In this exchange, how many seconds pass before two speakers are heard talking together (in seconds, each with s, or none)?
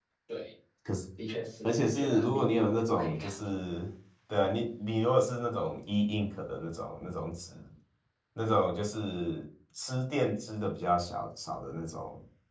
1.6 s